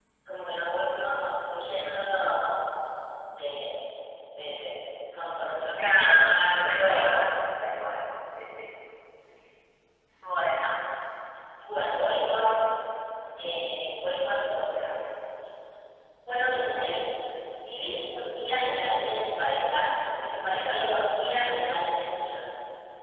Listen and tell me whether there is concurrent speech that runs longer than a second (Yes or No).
Yes